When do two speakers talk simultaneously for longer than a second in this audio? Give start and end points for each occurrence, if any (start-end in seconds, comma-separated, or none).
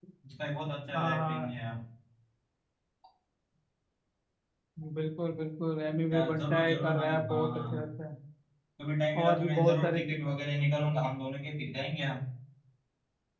6.1-7.9, 9.2-10.4